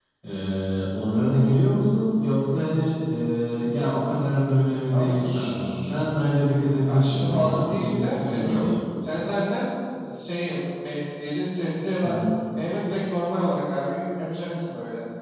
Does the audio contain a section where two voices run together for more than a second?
Yes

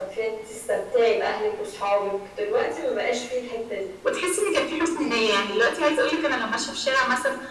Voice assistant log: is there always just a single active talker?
Yes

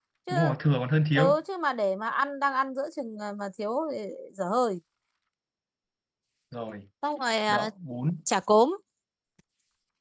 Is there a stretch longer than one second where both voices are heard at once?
No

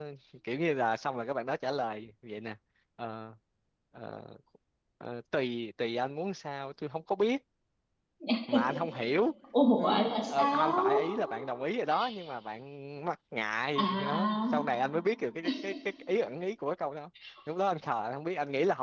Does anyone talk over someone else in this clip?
Yes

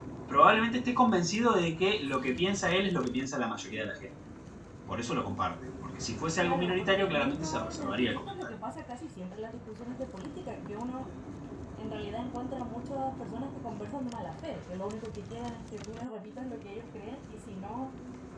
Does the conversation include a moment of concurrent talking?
Yes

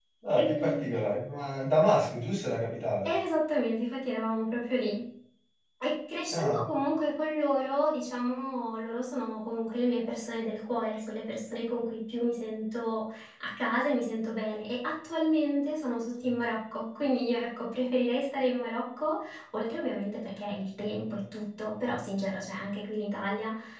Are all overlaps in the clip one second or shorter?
Yes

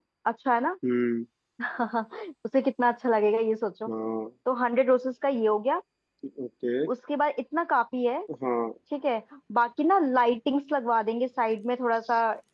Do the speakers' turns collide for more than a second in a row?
No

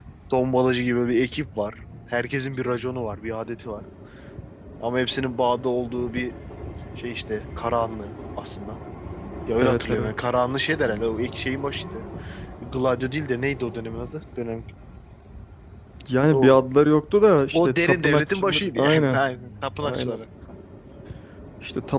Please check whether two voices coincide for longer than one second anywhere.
Yes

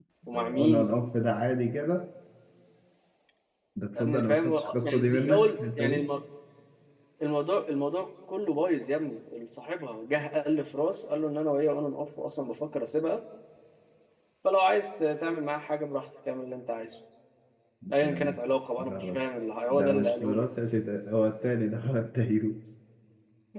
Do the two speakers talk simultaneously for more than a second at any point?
Yes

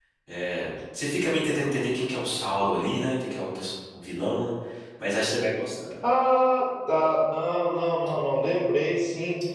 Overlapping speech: No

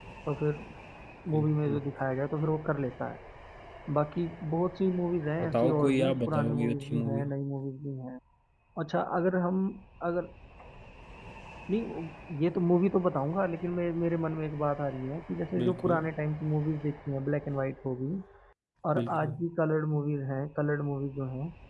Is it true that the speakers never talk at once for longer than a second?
No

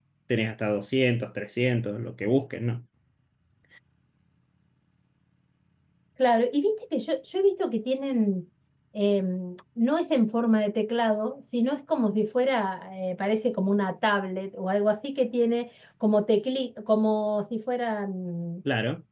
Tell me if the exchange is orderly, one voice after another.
Yes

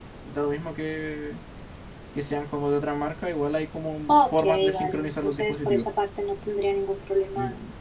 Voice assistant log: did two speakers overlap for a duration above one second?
Yes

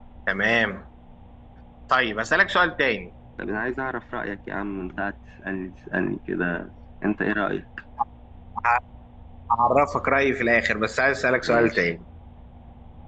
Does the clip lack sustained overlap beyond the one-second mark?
Yes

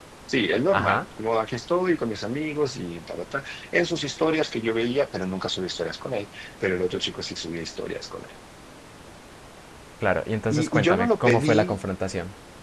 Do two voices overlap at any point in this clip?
Yes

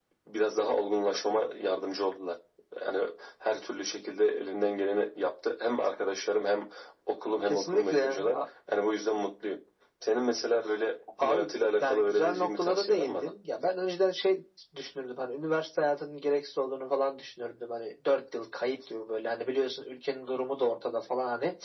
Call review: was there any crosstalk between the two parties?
Yes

